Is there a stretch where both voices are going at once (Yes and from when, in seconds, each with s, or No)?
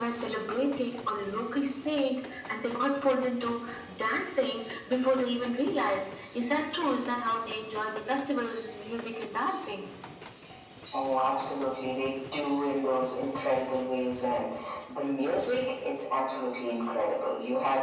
No